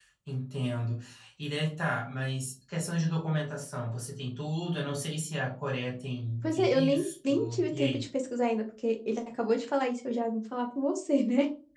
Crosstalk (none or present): present